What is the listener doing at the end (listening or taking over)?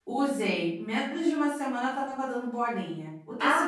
listening